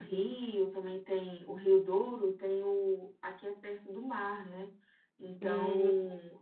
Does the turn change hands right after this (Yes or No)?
No